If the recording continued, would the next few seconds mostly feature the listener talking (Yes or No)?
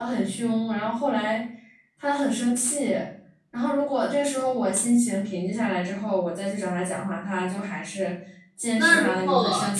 Yes